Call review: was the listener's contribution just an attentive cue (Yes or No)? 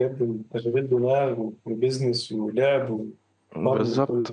No